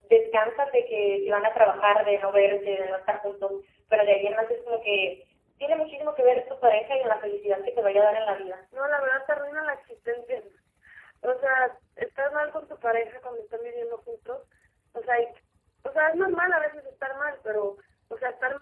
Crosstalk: none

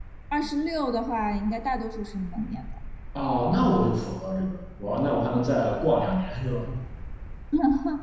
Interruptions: none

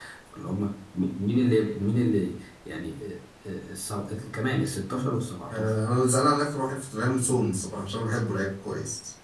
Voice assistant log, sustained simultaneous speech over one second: none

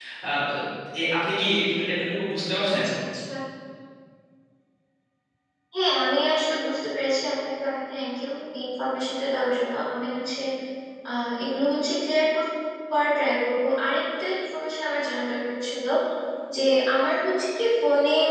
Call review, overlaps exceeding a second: none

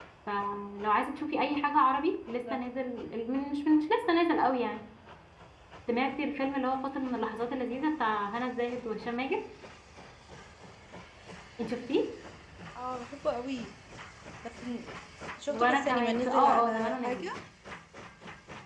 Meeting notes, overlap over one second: present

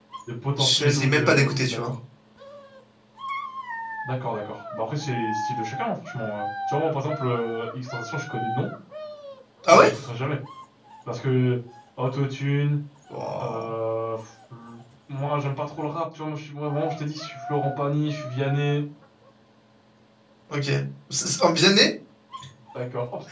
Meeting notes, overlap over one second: present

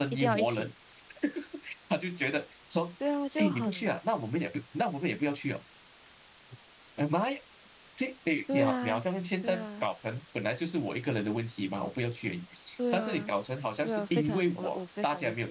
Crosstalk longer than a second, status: present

